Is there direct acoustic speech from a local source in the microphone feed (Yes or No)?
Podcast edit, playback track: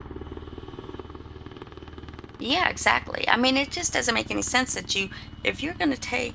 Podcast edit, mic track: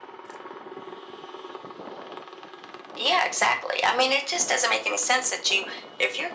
No